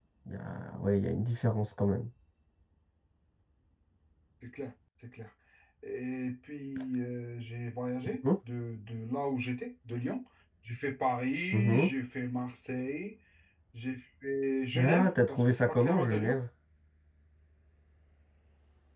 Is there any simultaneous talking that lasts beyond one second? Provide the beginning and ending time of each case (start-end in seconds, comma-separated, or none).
14.8-16.4